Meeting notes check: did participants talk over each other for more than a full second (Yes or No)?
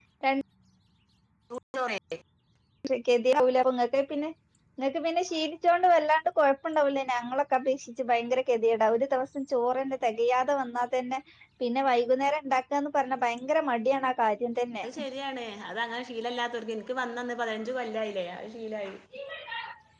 No